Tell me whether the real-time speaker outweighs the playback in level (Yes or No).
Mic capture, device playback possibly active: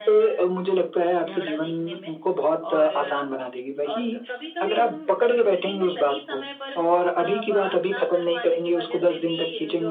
No